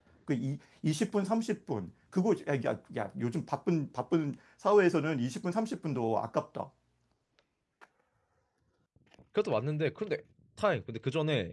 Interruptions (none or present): none